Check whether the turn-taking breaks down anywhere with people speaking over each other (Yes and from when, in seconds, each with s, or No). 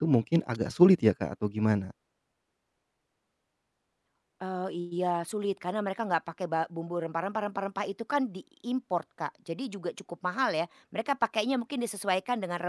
No